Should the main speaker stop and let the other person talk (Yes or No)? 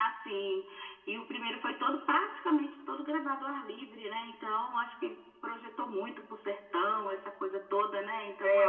Yes